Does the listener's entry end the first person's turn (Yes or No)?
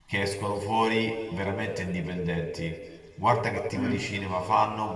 No